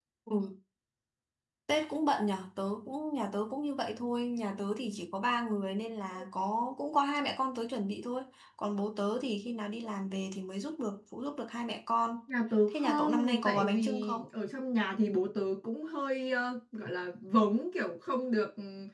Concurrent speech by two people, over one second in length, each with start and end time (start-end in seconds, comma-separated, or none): 12.7-14.2